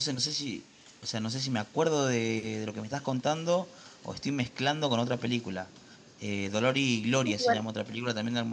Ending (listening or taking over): listening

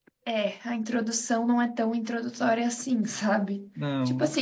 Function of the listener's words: listening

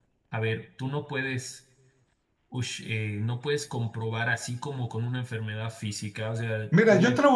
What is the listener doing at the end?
taking over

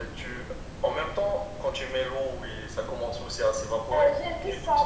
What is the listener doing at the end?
taking over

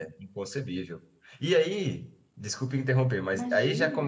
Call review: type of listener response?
listening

